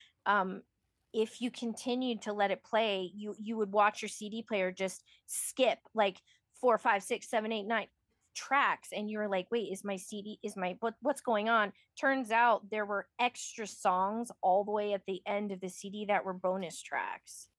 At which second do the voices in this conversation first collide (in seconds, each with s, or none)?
none